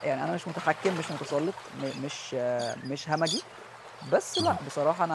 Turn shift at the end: No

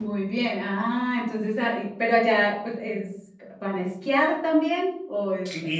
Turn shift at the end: Yes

